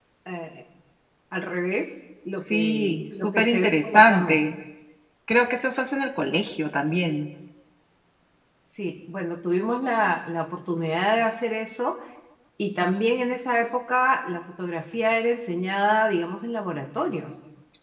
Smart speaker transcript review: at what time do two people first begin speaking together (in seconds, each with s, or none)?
2.5 s